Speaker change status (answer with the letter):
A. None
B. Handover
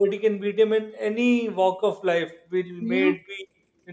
A